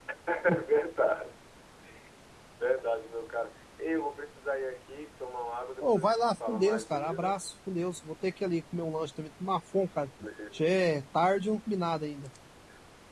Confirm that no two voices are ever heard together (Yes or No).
No